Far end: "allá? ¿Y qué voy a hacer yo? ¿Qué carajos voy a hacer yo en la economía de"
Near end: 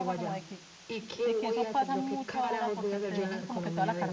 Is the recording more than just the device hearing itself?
Yes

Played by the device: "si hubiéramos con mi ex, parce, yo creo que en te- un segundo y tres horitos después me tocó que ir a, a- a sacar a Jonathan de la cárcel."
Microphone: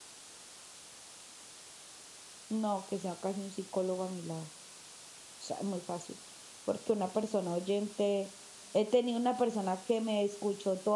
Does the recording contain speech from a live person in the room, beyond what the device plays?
Yes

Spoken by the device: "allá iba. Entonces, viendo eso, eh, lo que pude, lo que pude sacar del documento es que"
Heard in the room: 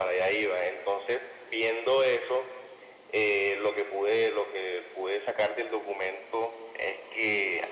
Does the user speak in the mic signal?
No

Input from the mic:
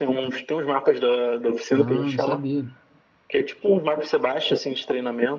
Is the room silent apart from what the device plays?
No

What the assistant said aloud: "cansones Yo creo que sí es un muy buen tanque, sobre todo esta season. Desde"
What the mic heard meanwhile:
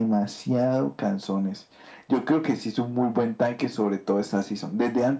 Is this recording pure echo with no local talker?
Yes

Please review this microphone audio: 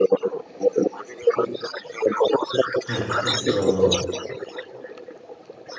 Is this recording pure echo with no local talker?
No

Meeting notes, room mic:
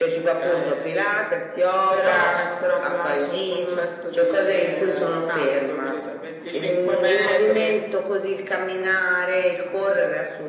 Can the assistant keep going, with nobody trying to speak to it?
Yes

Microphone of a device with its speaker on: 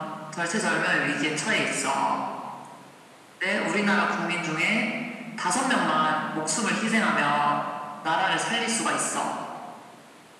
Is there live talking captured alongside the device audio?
No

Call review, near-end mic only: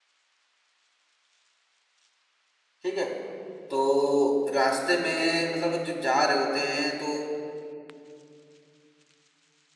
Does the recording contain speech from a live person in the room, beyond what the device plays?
Yes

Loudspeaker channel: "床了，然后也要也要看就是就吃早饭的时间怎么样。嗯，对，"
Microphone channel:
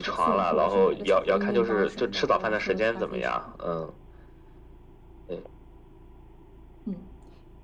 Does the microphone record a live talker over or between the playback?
Yes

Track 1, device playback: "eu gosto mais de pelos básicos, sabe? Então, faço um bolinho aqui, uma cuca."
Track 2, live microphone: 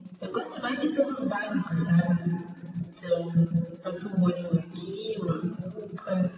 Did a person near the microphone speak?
No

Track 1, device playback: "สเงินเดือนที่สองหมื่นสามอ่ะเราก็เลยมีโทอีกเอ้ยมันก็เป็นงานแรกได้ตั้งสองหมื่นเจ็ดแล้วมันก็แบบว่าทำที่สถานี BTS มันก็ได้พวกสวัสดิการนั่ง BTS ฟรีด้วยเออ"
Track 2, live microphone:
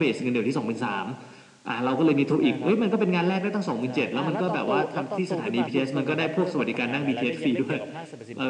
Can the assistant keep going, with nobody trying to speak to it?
No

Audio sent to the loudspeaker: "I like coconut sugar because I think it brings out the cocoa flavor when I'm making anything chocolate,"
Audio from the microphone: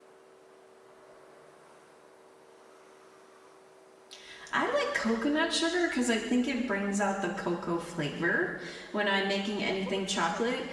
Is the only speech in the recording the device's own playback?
No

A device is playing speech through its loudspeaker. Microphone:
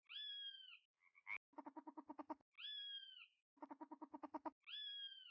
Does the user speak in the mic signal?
No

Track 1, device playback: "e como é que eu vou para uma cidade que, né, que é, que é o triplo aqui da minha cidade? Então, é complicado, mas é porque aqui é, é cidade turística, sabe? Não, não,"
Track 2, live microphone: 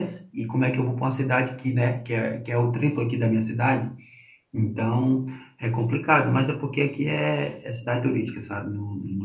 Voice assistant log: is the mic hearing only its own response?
Yes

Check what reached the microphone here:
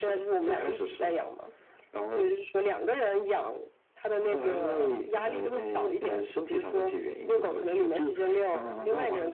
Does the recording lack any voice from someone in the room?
Yes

